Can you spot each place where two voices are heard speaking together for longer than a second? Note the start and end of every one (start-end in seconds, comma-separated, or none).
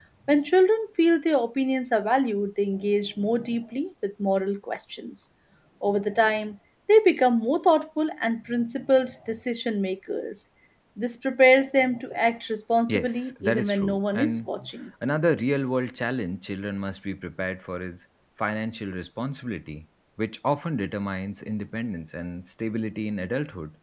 12.9-14.5